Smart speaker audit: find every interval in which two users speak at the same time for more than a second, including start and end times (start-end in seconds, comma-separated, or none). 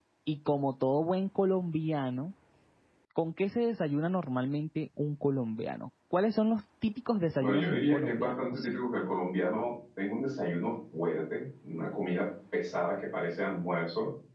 7.4-8.7